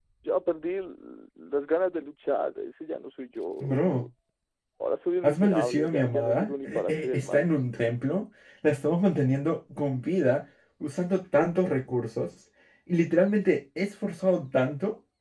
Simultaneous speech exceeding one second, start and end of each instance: 5.2-7.5

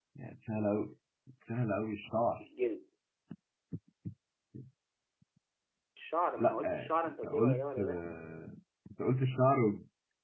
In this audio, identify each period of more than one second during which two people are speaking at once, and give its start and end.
6.4-8.0

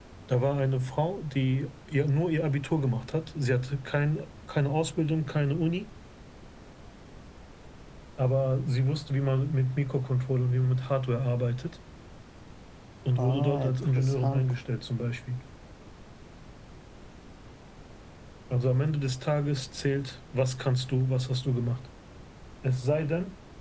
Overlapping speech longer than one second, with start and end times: 13.2-14.5

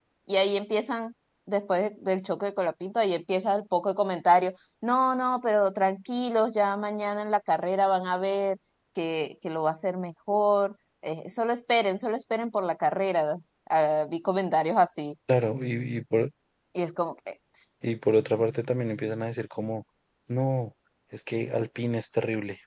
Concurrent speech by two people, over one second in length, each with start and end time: none

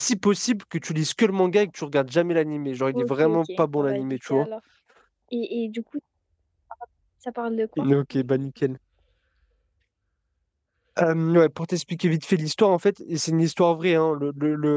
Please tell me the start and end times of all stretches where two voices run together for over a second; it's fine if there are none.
2.9-4.5

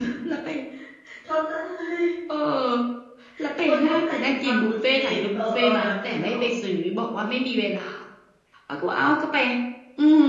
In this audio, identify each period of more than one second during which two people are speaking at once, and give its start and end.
3.6-6.3

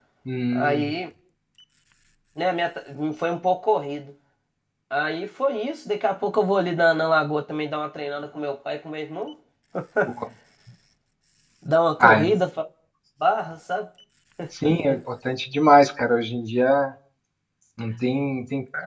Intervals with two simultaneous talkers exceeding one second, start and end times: none

